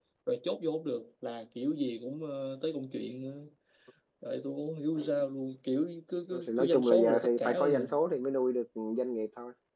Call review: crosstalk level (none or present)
present